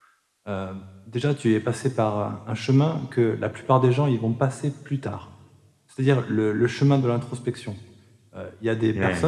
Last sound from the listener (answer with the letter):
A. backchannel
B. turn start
A